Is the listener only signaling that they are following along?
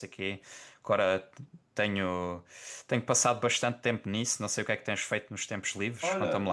No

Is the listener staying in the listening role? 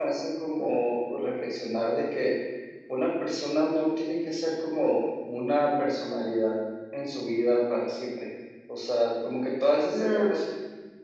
Yes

